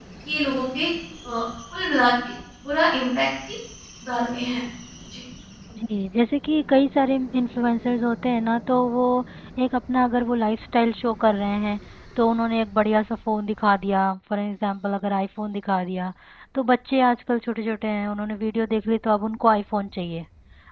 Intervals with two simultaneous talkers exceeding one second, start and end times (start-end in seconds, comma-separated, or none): none